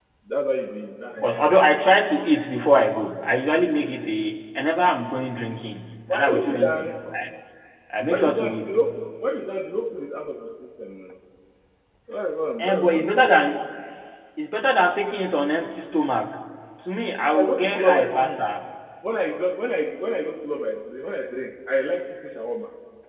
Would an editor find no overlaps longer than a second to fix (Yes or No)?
No